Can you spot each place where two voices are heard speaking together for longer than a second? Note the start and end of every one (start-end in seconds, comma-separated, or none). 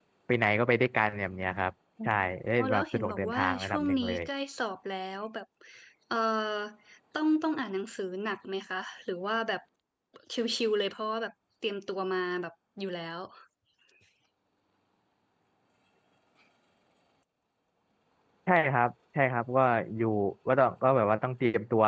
2.6-4.2